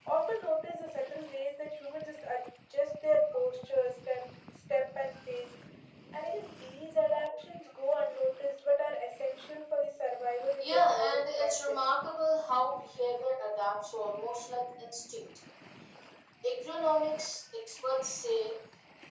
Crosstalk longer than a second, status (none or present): present